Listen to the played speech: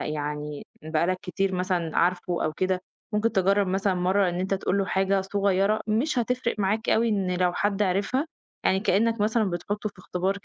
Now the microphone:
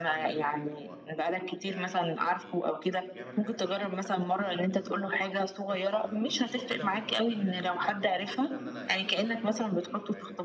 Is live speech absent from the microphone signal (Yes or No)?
No